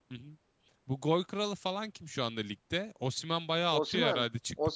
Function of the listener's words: taking over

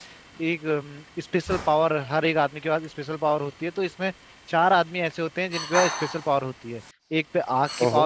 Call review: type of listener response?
listening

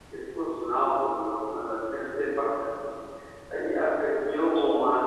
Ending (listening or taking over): listening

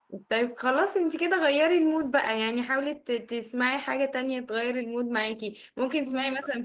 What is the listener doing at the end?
listening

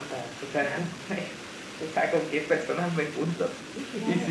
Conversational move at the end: taking over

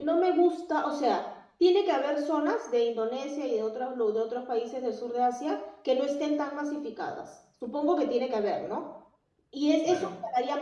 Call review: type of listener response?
listening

